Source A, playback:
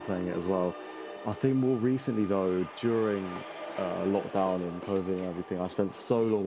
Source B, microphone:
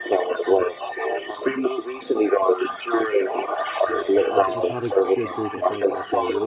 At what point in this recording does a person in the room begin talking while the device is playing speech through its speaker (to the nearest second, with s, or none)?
4 s